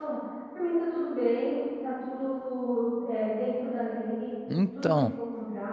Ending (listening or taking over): listening